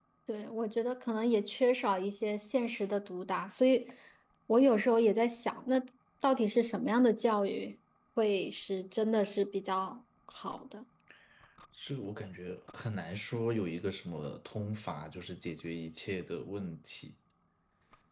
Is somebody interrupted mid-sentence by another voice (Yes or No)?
No